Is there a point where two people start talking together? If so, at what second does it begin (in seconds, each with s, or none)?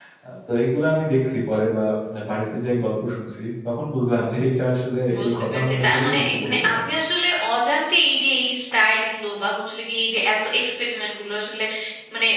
5.1 s